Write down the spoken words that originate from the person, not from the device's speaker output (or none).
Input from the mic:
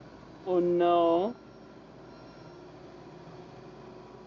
Oh no,